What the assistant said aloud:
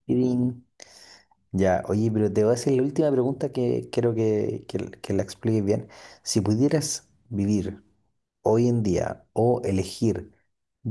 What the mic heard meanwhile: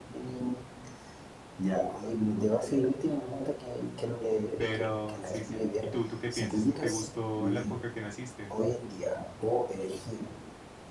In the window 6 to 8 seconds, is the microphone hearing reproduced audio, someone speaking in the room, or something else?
both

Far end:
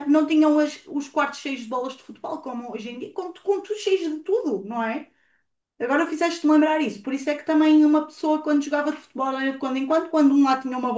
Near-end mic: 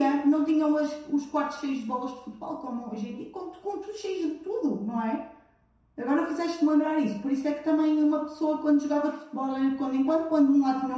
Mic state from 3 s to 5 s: echo only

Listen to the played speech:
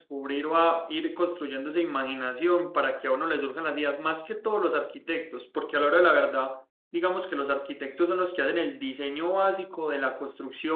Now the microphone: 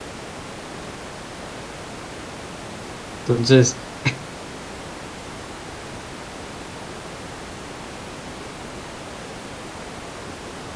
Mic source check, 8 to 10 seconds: neither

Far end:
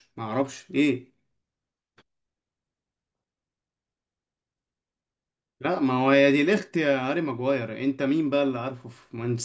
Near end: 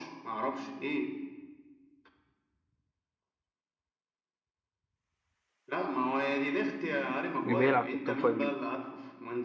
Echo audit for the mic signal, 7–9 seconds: both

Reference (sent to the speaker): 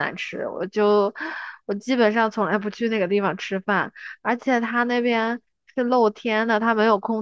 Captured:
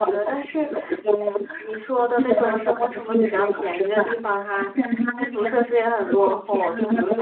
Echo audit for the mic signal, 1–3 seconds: both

